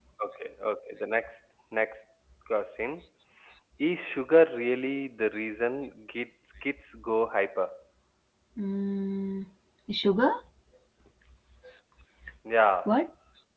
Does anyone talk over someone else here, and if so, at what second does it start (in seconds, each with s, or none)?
none